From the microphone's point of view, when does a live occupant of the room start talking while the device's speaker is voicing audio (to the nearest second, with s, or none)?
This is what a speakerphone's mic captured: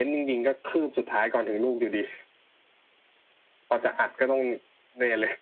none